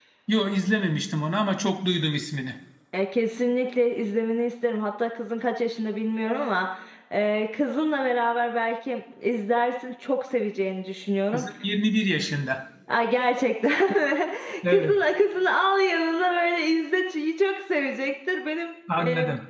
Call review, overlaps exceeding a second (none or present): none